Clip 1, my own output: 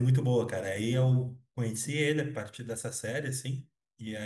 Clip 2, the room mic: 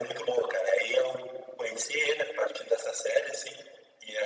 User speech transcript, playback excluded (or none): none